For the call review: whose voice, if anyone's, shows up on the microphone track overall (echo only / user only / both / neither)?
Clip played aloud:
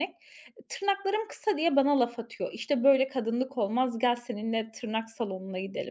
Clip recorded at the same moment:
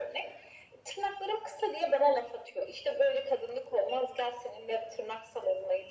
echo only